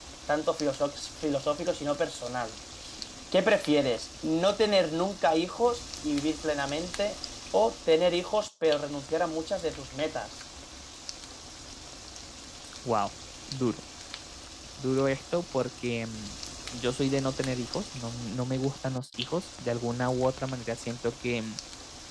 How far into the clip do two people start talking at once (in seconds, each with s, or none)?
none